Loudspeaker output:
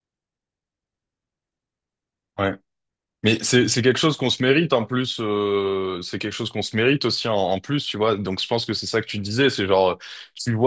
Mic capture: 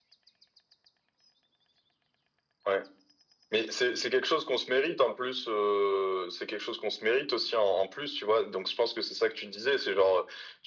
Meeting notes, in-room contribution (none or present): none